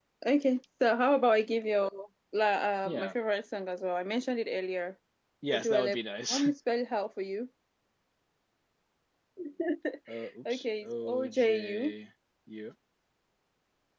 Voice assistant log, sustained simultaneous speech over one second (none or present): present